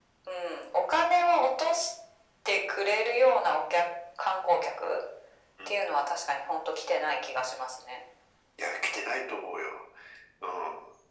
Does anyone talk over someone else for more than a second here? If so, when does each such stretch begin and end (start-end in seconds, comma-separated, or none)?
none